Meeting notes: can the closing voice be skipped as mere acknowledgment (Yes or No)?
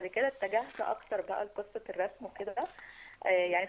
Yes